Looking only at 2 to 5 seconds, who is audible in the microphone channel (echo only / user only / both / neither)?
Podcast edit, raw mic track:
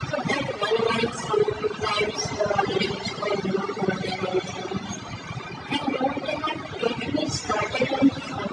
echo only